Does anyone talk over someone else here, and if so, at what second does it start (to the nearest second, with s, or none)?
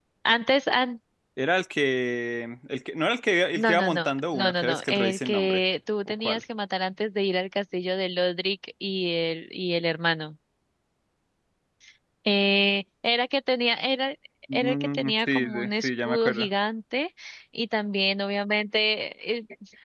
4 s